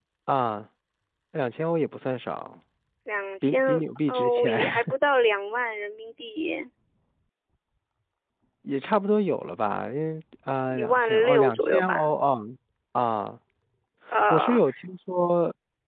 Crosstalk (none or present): present